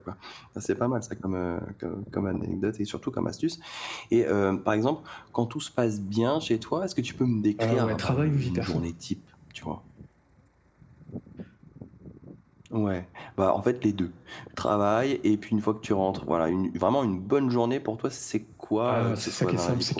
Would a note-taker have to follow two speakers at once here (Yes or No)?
Yes